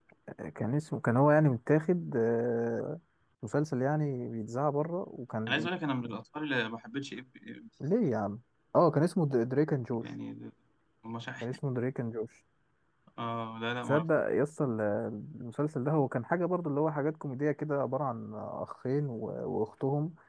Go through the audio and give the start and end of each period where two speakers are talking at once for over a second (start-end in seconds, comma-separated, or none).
none